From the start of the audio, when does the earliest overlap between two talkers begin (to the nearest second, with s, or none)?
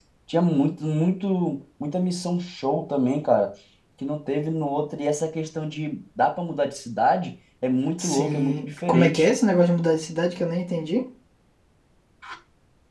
8 s